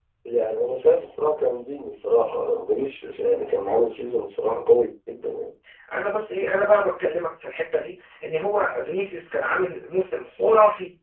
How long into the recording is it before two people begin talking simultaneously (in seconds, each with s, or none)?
none